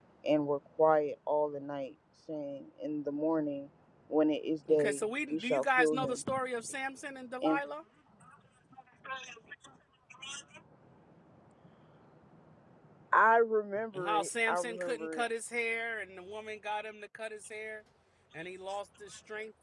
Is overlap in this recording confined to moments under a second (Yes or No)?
No